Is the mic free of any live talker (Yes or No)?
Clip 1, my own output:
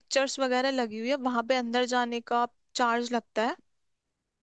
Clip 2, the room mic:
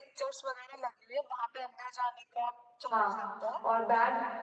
No